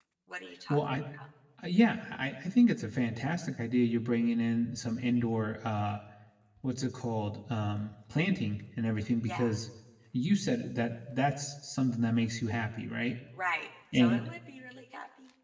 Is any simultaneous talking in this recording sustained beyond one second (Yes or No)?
No